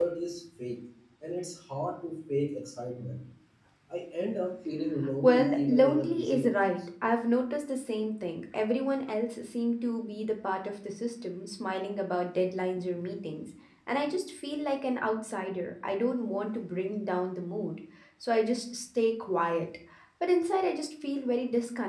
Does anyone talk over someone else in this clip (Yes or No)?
Yes